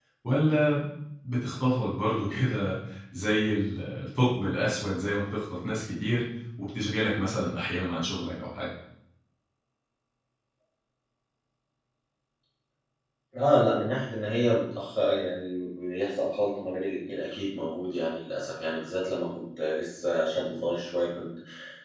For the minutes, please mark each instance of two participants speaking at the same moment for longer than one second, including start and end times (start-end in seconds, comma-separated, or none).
none